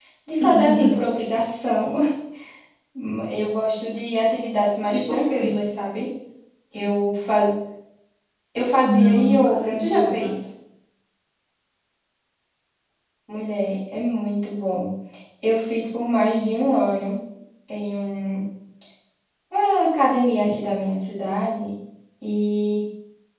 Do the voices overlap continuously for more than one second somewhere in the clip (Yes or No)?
Yes